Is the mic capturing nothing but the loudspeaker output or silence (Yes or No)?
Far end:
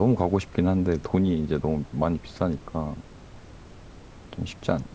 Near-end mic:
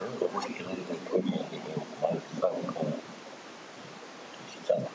Yes